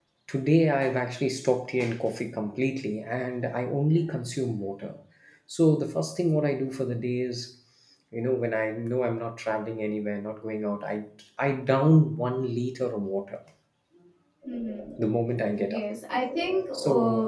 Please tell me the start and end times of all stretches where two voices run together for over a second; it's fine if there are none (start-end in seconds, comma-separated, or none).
none